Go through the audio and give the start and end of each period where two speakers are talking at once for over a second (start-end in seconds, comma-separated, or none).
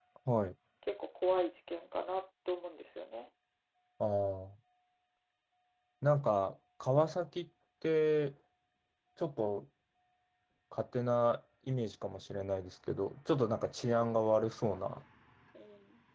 none